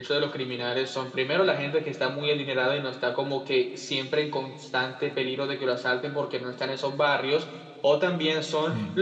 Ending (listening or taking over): listening